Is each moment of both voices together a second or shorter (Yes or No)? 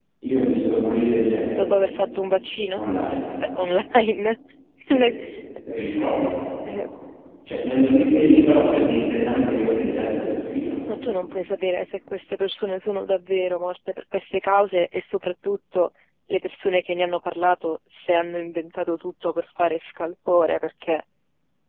Yes